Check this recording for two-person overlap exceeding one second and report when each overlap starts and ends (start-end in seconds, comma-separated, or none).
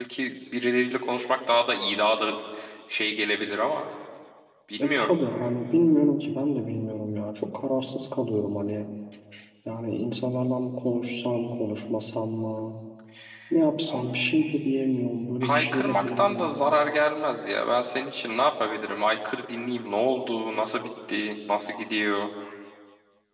15.4-16.7